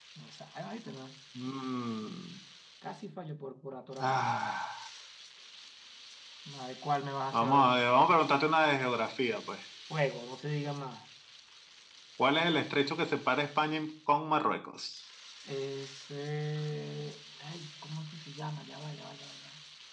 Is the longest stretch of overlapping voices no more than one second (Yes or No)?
Yes